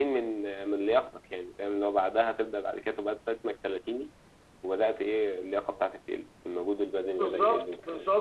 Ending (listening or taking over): taking over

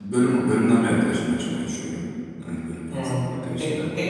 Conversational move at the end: taking over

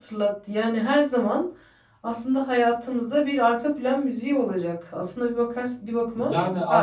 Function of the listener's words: taking over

